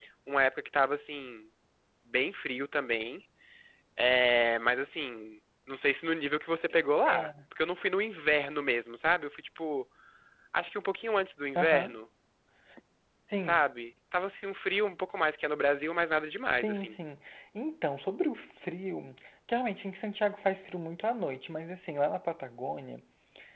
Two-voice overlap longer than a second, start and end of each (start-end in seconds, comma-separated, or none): none